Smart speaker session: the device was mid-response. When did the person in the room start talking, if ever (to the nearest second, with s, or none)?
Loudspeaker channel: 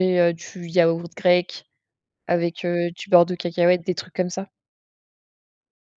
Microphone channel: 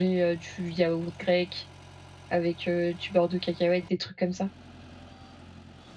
none